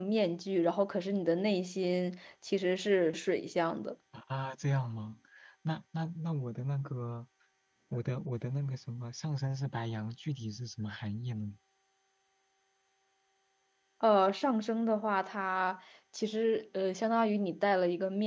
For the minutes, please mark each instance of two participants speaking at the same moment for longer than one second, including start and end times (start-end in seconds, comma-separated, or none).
none